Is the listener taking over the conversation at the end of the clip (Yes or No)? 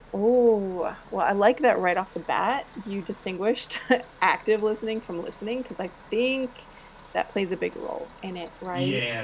Yes